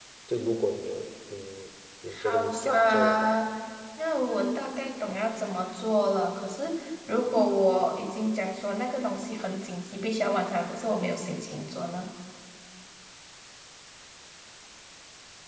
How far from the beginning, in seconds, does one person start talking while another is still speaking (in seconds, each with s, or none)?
2.1 s